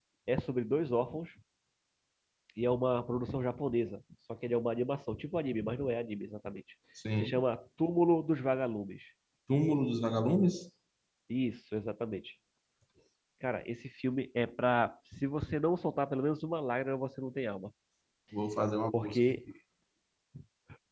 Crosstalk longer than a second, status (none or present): none